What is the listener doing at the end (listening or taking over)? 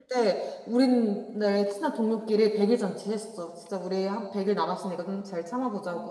taking over